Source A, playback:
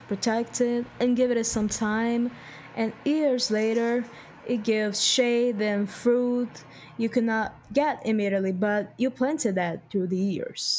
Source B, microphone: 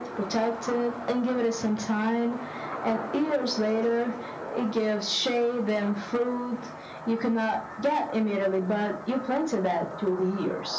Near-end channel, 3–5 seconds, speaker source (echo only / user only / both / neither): echo only